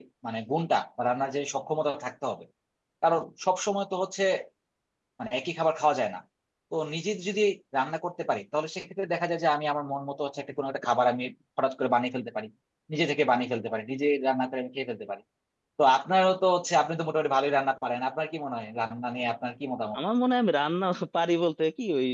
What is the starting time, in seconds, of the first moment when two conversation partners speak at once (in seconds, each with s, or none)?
none